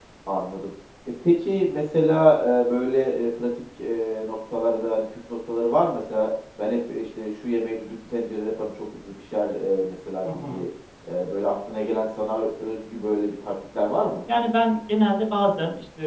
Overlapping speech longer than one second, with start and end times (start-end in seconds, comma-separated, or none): none